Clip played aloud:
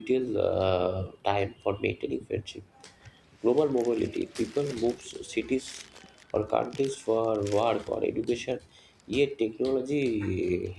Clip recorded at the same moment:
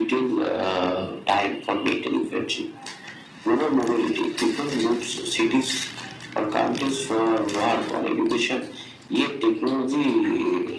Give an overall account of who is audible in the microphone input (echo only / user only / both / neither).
echo only